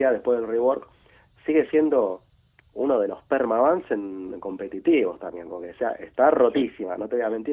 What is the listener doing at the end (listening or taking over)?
listening